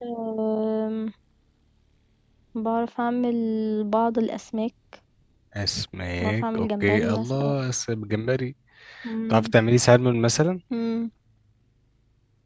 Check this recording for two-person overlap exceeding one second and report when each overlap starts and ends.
6.2-7.5

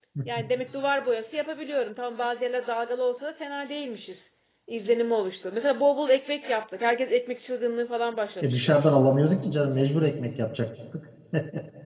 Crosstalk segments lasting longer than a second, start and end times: none

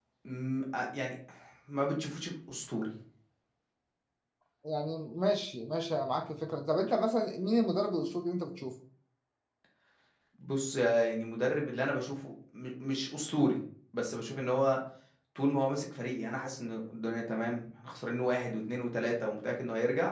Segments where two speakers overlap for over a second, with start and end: none

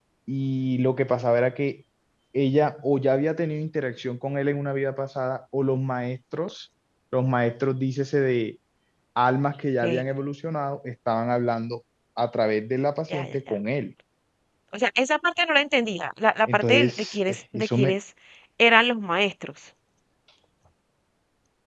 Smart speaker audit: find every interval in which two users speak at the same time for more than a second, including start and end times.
16.5-17.9

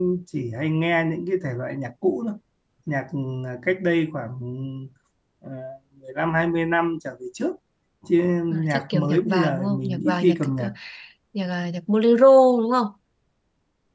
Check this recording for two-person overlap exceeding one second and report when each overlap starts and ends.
8.5-10.7

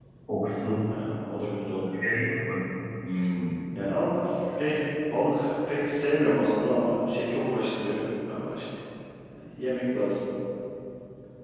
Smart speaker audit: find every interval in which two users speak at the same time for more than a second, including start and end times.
none

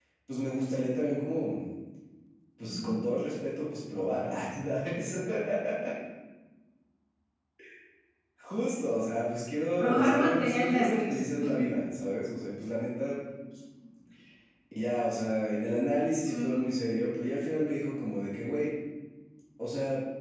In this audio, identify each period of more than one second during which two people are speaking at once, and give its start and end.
9.8-11.2

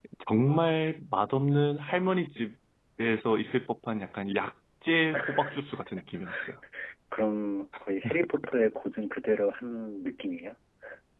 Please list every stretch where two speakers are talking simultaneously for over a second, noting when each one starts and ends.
none

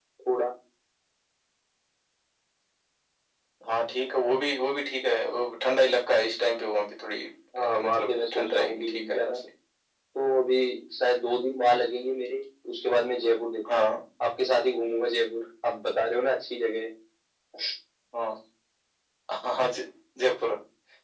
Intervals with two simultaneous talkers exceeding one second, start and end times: 7.6-9.3

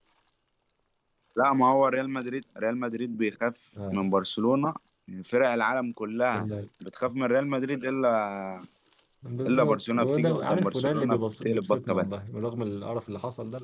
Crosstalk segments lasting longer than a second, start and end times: 9.5-12.1

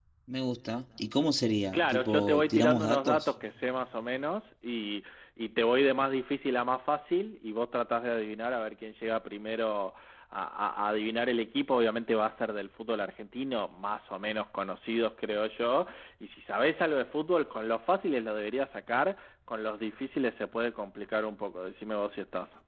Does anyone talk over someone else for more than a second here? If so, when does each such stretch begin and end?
1.7-3.3

